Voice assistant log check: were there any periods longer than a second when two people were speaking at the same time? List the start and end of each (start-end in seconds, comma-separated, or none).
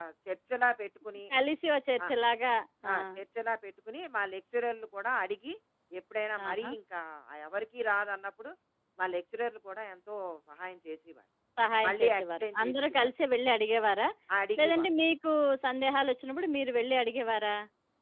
11.9-13.1